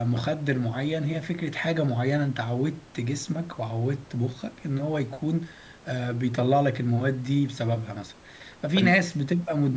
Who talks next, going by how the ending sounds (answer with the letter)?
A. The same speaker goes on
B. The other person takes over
A